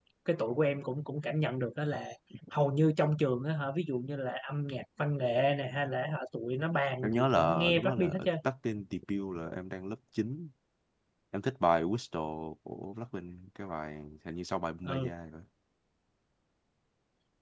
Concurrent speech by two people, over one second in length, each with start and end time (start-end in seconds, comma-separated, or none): 7.0-8.3